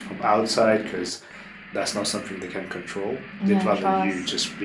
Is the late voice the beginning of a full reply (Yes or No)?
No